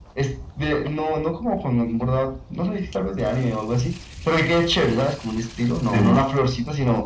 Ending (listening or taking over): listening